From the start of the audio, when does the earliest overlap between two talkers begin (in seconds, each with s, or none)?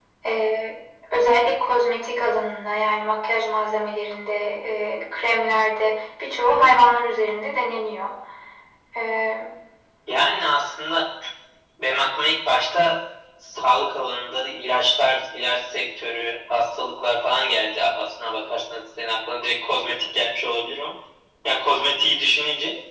none